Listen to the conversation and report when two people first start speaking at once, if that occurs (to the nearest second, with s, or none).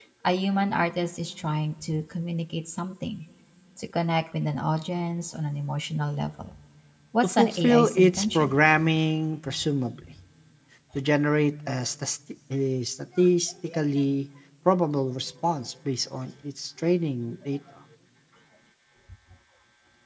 7 s